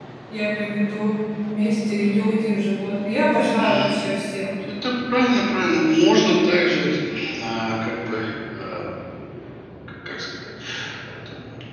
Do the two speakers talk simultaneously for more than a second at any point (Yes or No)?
No